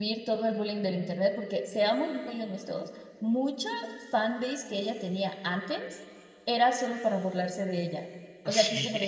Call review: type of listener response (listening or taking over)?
listening